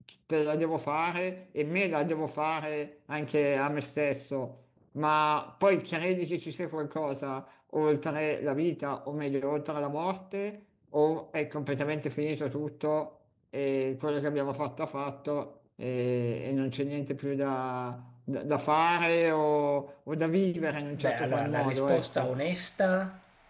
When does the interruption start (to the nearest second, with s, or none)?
21 s